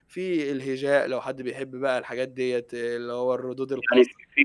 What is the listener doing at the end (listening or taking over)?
taking over